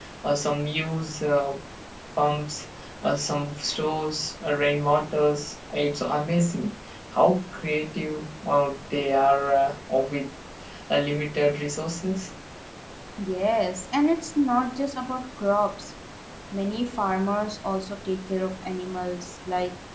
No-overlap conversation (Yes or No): Yes